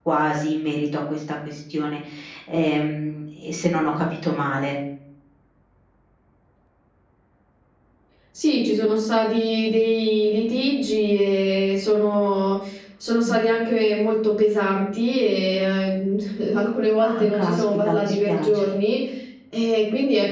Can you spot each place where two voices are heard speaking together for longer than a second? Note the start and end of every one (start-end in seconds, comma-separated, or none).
17.1-18.6